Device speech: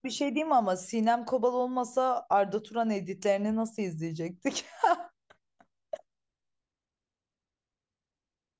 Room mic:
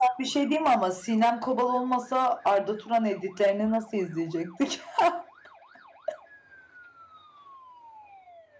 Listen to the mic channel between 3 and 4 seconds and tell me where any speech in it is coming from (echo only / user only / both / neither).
echo only